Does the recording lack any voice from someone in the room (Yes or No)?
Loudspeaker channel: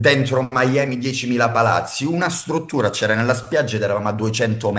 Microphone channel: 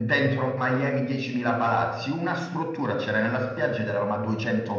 Yes